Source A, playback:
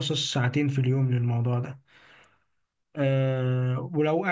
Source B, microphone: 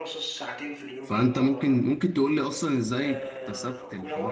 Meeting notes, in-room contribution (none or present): present